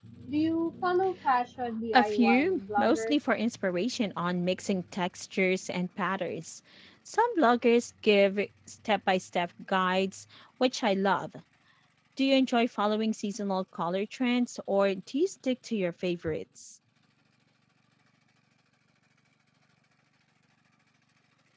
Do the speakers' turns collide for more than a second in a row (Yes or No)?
Yes